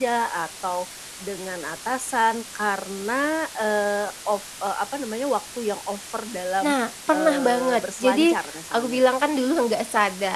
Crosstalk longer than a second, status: present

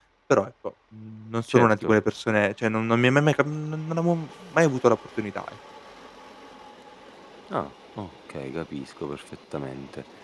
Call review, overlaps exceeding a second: none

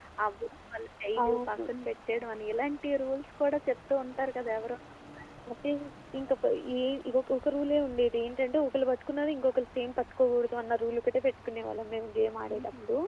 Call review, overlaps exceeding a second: none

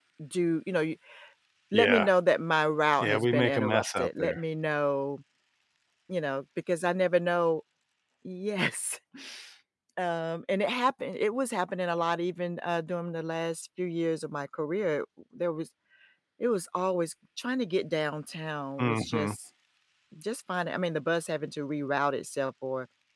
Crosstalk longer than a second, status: present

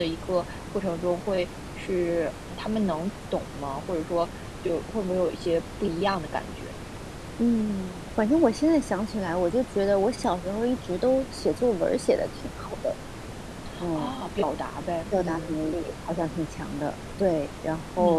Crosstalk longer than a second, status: none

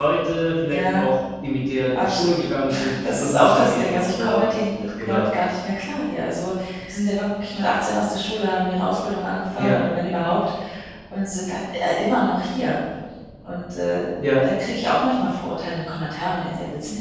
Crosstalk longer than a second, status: present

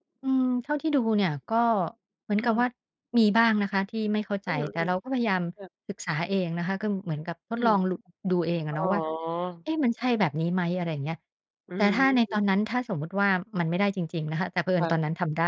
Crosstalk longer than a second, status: none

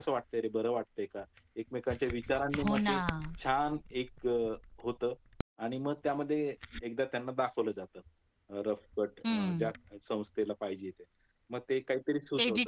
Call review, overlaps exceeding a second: none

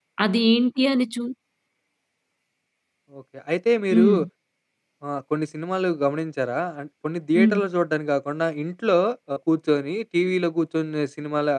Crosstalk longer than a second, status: none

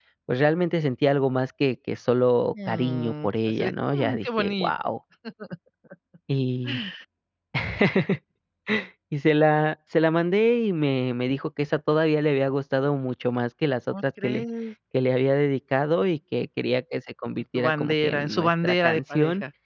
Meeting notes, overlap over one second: present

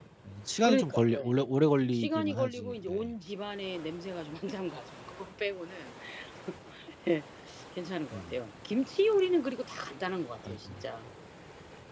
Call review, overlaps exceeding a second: present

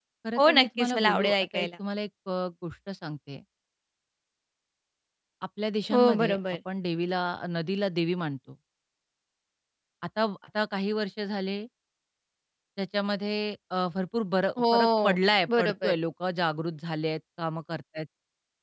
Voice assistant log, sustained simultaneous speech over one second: present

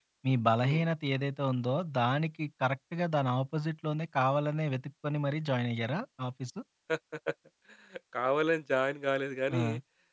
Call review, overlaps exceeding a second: none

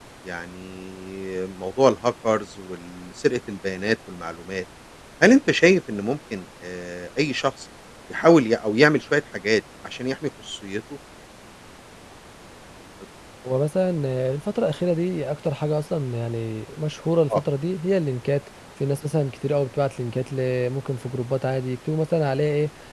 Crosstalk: none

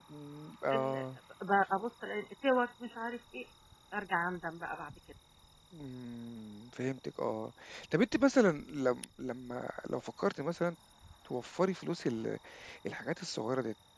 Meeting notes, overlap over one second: none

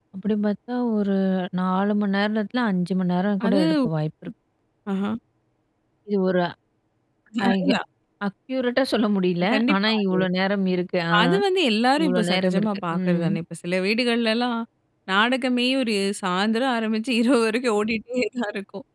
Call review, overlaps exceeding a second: present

